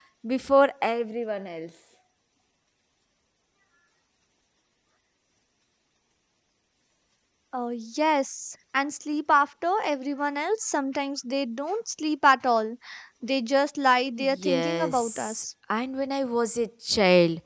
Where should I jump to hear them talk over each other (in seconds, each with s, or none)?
14.2 s